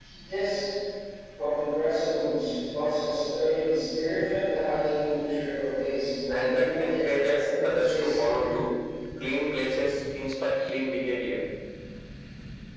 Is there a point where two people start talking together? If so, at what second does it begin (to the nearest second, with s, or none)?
6 s